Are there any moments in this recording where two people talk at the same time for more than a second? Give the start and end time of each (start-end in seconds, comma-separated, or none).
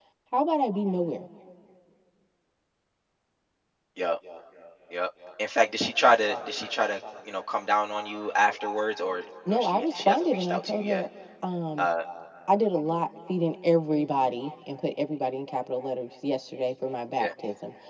9.5-11.0